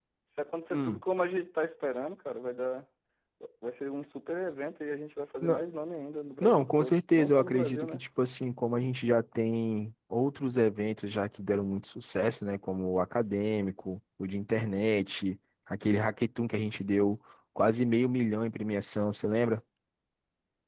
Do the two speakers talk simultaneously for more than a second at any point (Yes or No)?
Yes